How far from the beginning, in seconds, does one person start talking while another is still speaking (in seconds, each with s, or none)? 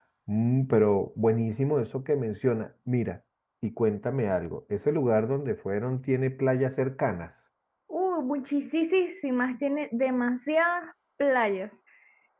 none